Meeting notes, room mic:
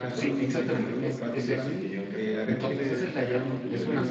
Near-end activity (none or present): present